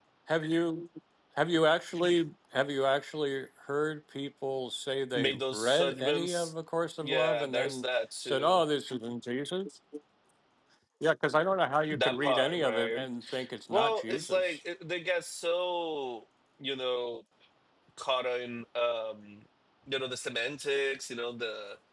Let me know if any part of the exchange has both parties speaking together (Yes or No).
Yes